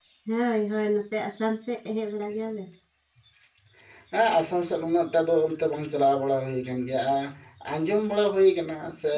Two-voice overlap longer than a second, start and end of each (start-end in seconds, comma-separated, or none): none